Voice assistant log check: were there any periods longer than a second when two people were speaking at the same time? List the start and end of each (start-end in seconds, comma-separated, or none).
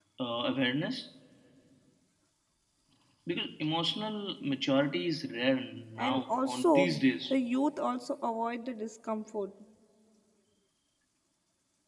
6.0-7.3